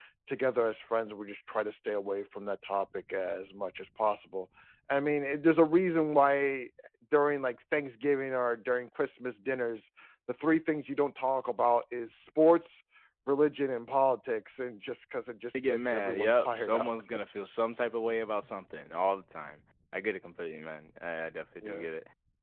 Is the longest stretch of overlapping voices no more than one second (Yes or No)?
No